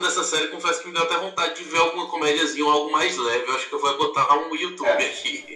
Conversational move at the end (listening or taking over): taking over